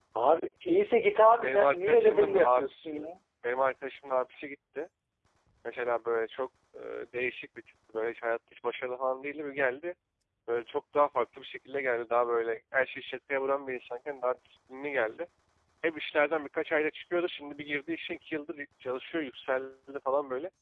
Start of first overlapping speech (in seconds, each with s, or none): 1.4 s